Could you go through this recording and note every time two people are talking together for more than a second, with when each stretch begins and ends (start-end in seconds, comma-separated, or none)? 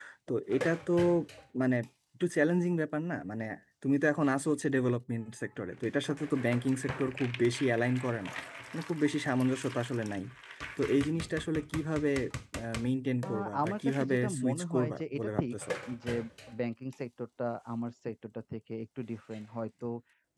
13.2-15.6